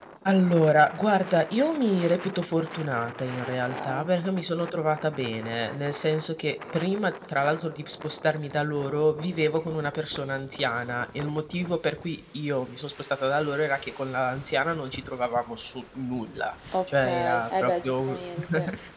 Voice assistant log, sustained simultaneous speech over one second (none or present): present